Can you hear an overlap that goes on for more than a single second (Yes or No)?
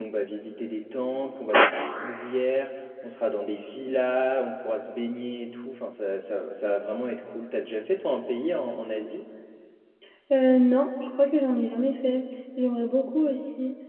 No